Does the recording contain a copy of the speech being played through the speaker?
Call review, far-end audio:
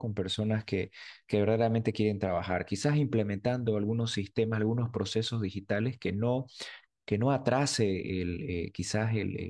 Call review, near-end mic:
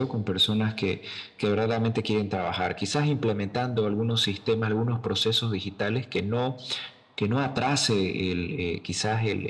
Yes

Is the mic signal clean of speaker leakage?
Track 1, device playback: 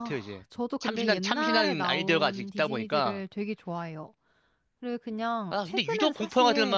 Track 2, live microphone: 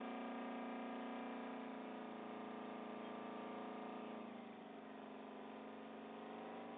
Yes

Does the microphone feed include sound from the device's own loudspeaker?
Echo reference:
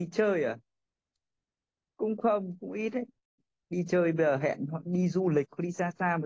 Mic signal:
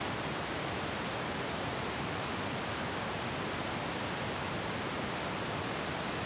No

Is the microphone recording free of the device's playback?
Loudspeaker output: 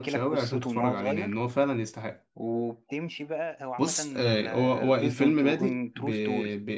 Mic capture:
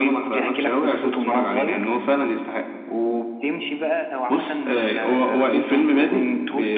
No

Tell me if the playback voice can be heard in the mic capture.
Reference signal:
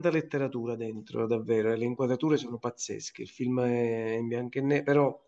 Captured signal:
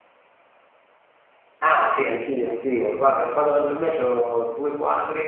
No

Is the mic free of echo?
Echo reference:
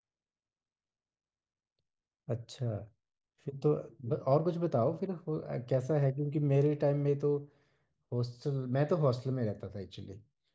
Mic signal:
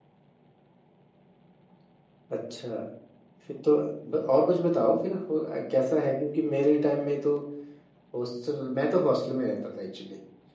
No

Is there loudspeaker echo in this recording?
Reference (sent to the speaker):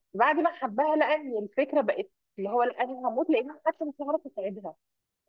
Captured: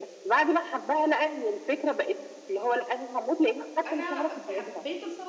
Yes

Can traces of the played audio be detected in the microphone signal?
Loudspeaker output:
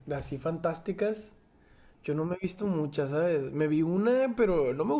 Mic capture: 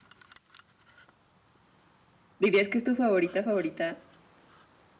No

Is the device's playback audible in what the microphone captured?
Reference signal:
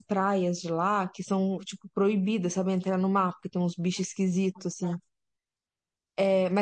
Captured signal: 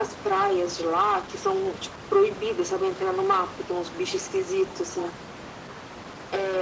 Yes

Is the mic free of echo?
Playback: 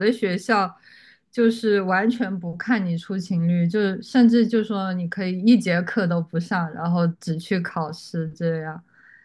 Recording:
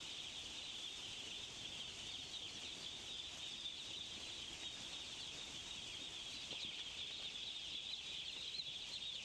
Yes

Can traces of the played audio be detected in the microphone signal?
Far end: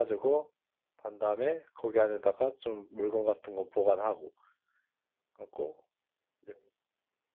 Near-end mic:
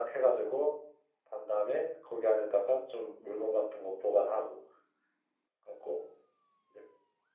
Yes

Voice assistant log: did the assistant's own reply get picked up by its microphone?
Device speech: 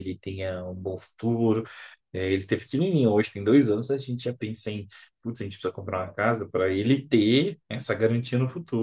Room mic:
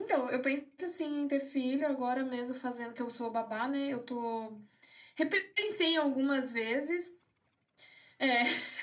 No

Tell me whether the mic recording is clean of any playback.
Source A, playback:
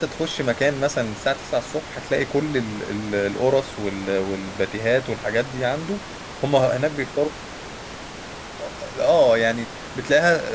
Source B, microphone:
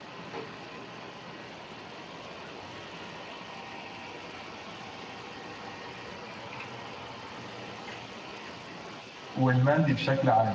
Yes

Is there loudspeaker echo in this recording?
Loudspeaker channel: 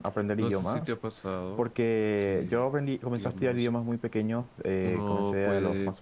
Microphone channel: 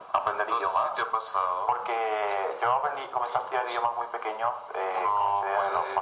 Yes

